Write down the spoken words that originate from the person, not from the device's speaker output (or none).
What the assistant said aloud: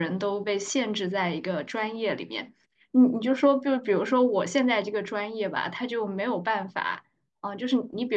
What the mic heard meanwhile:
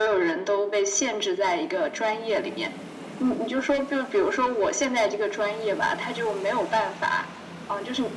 none